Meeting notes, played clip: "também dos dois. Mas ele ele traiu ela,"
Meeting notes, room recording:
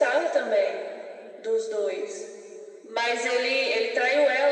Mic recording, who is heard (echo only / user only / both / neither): echo only